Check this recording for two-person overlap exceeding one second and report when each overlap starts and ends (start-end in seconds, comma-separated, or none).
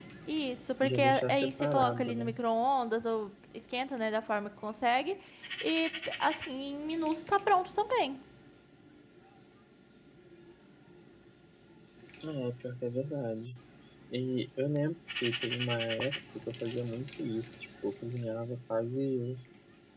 0.8-2.3